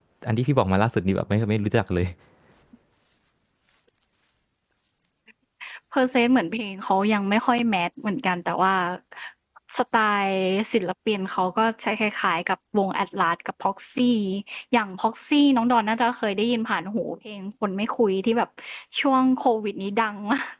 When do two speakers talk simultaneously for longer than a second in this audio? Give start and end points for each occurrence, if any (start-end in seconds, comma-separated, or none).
none